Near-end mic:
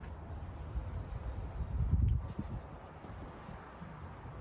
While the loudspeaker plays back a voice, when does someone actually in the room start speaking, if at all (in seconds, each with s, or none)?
none